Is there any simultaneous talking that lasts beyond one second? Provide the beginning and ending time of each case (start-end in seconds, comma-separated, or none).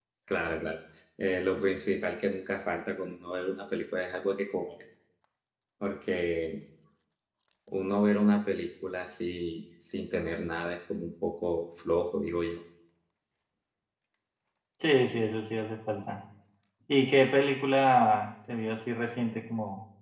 none